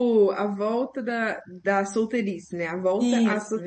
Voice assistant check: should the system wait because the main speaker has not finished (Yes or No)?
No